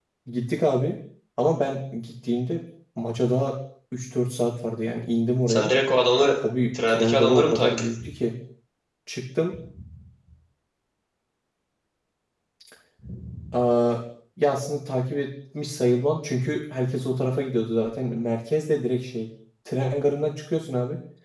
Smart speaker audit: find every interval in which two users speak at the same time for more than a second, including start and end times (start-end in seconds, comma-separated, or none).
6.9-8.1